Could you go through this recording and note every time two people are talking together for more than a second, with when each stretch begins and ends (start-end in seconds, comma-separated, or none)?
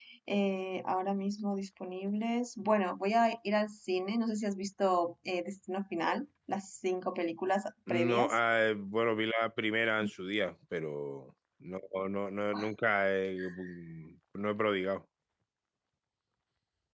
none